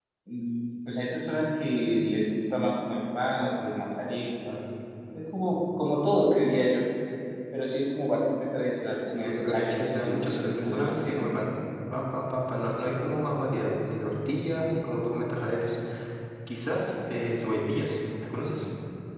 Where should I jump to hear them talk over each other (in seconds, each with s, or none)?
9.1 s